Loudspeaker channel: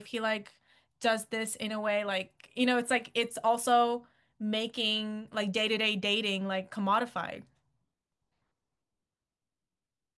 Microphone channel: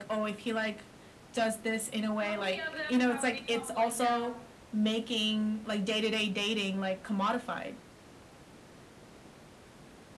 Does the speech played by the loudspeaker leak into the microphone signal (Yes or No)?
Yes